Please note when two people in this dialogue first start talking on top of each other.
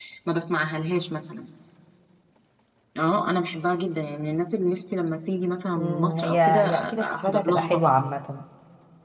5.8 s

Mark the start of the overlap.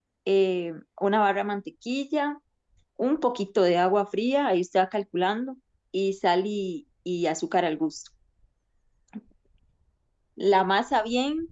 none

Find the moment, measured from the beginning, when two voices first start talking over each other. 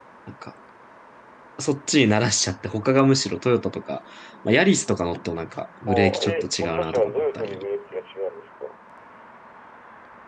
5.9 s

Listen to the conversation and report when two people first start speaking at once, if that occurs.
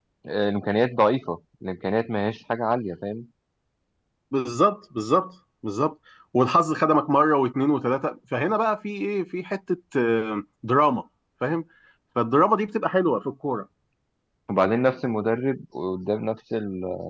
none

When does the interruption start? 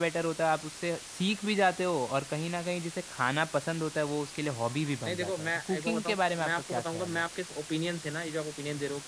5.1 s

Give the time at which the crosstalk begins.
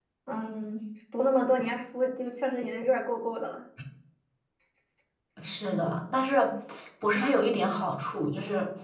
none

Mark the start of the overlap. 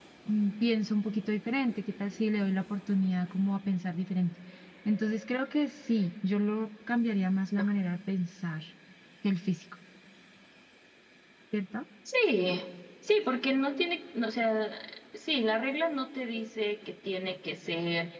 none

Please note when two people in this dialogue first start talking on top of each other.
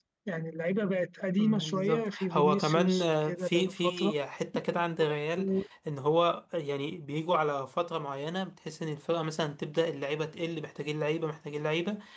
1.3 s

